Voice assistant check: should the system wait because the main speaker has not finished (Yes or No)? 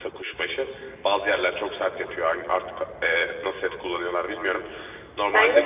Yes